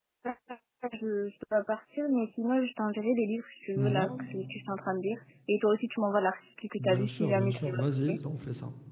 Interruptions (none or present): present